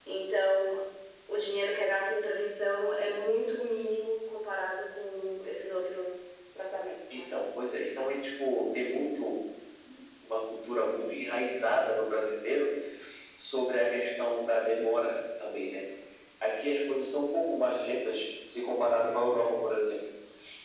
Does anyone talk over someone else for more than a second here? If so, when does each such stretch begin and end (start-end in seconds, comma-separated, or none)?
none